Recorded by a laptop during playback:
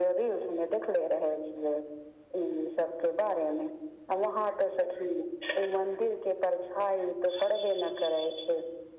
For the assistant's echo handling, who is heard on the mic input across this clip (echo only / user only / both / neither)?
echo only